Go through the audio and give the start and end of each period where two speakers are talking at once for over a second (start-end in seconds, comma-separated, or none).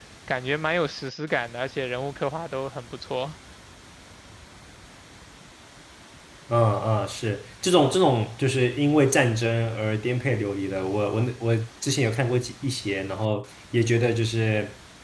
none